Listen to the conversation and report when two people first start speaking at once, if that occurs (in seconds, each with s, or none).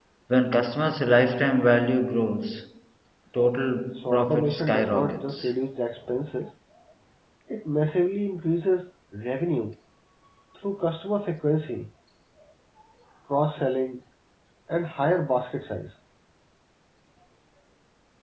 4.0 s